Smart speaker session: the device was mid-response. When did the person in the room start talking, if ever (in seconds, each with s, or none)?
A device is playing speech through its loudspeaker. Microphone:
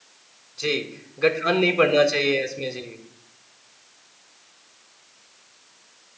0.6 s